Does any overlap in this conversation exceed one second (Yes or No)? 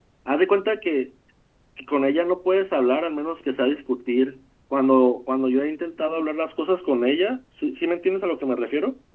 No